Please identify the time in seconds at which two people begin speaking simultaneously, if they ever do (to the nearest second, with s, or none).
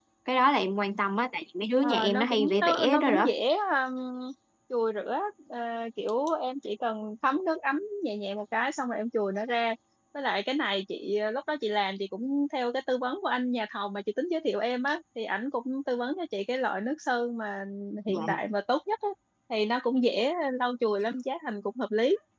2 s